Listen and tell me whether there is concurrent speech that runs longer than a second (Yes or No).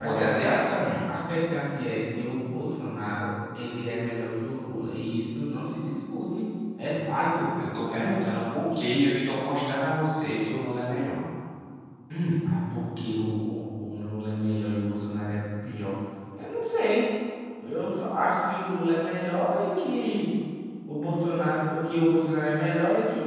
No